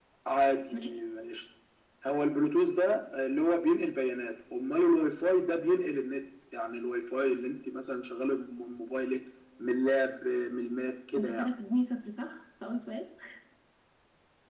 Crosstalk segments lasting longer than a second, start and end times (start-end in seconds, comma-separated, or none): none